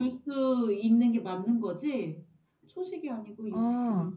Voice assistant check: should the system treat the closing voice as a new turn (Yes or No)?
Yes